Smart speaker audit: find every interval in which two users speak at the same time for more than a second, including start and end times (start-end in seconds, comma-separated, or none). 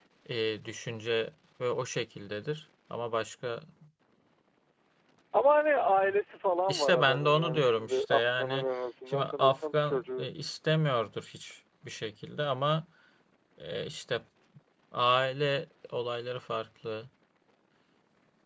6.7-8.7, 9.1-10.3